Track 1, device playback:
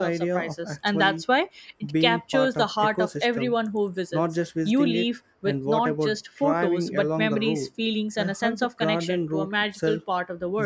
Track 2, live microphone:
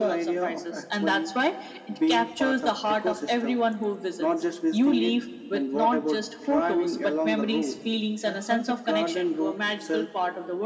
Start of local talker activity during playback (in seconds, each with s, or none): none